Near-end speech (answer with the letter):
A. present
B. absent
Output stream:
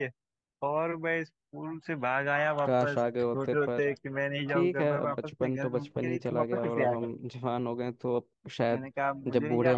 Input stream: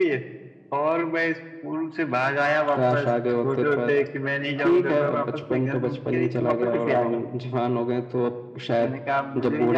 B